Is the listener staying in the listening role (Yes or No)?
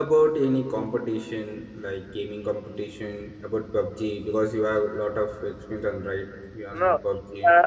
No